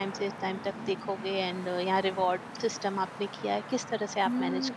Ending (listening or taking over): taking over